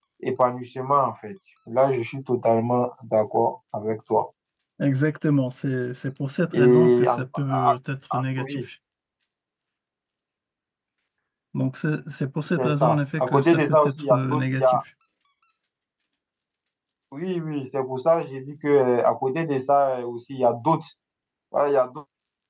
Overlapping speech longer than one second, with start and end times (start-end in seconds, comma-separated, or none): 6.5-7.8, 12.6-14.8